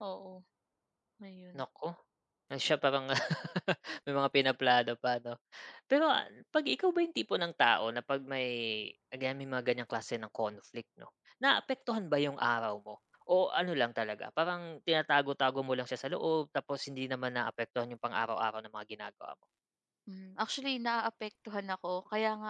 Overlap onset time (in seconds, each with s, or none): none